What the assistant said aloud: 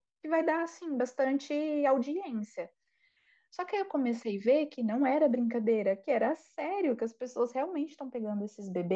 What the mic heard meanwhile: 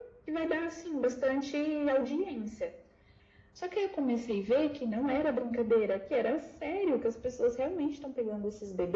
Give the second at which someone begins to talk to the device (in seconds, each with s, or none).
none